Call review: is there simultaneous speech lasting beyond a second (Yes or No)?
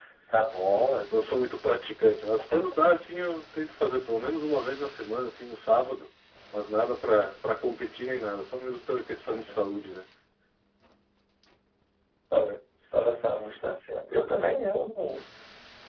No